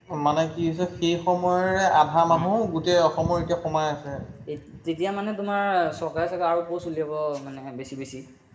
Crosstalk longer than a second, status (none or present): none